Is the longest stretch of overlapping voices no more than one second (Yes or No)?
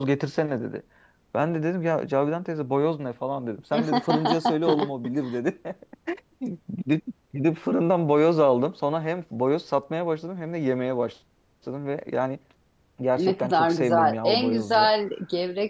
No